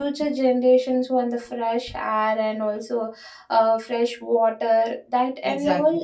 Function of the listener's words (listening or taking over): listening